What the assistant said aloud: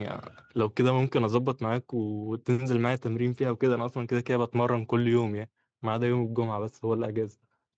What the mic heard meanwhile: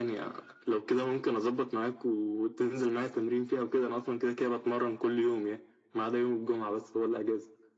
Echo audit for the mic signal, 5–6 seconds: echo only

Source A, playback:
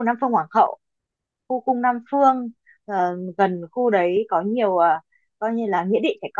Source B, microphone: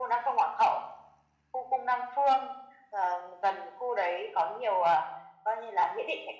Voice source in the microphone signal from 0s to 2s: echo only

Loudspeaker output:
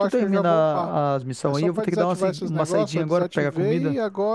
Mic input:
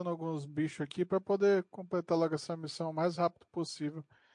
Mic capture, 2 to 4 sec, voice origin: user only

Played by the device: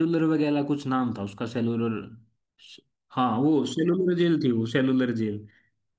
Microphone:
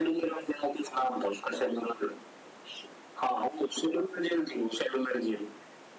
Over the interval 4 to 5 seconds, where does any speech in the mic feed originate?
echo only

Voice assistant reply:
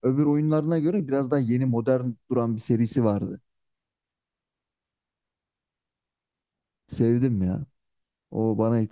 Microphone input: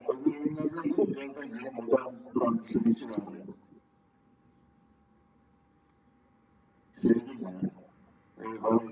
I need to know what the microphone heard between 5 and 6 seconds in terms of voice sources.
neither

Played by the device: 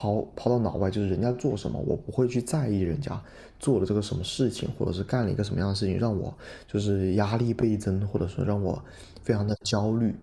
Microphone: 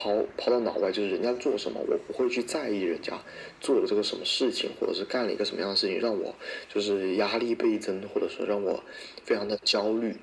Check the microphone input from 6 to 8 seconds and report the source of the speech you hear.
echo only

